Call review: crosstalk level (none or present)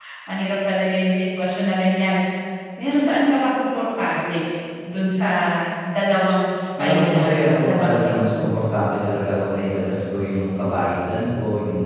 present